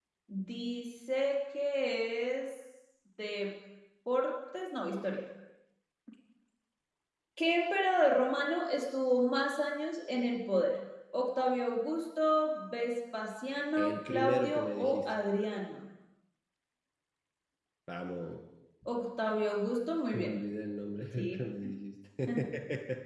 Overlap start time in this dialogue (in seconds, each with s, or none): 13.8 s